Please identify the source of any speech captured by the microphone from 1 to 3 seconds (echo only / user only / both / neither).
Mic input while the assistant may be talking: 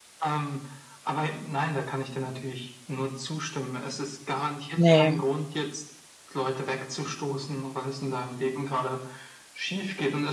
echo only